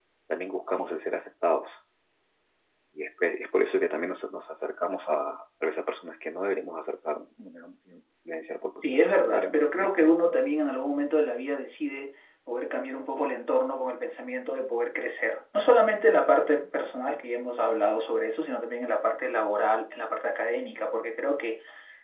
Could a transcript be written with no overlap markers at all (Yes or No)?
No